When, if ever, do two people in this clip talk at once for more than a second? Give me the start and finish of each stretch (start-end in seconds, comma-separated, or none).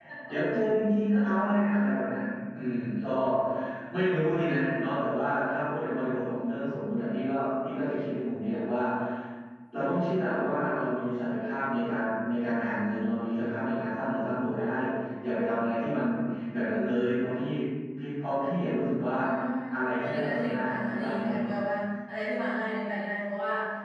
20.0-21.4